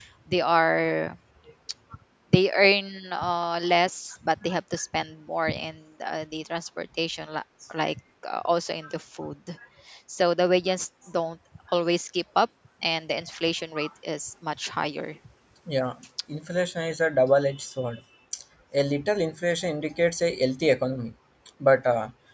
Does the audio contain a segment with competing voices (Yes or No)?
No